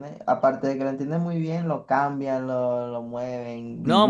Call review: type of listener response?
taking over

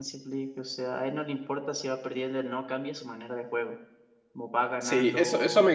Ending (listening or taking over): taking over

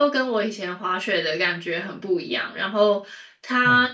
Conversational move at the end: listening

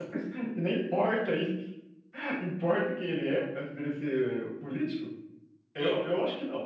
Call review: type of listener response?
listening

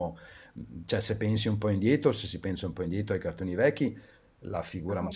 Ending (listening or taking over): listening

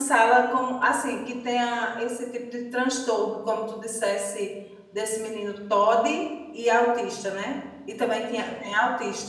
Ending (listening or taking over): listening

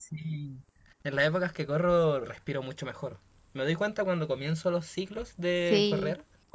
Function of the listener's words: listening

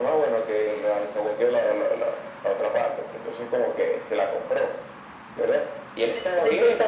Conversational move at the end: taking over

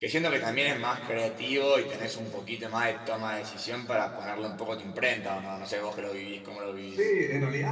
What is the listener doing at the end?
taking over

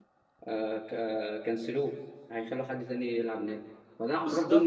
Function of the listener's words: listening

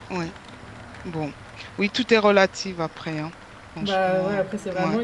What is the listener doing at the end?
taking over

